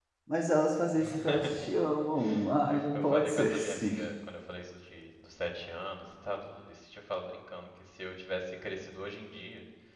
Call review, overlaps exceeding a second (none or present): present